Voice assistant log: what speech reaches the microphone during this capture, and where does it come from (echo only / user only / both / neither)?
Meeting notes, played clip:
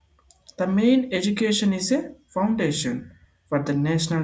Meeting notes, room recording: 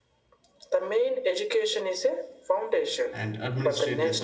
both